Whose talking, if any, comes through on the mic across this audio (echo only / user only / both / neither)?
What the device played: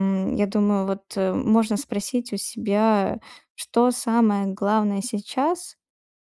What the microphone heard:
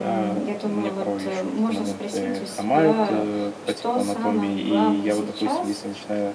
both